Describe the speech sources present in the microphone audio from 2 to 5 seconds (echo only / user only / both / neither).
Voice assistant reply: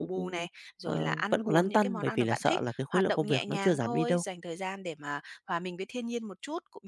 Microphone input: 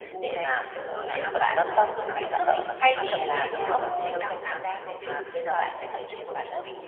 both